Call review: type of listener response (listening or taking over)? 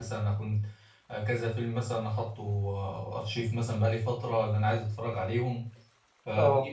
listening